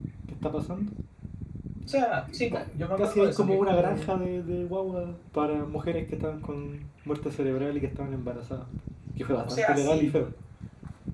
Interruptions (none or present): present